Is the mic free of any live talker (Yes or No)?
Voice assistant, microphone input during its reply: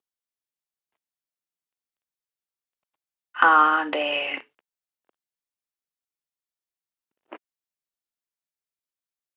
No